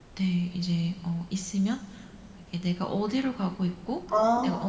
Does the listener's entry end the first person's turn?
No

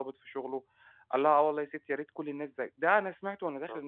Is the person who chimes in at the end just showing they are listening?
No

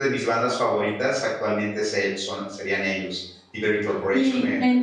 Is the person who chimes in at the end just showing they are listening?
No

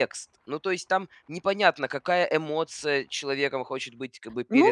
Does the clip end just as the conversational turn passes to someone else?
Yes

